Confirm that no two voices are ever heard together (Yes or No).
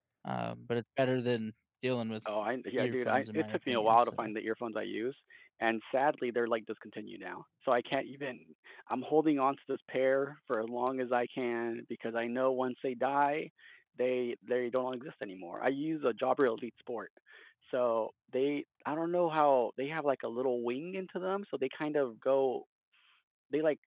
No